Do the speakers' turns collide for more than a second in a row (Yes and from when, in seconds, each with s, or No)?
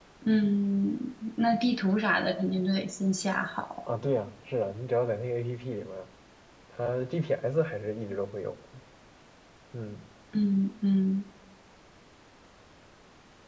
No